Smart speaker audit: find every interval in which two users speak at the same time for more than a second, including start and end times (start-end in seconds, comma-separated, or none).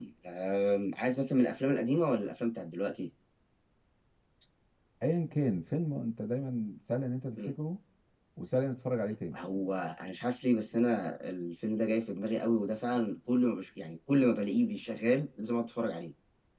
none